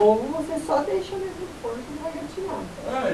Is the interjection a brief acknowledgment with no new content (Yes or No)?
No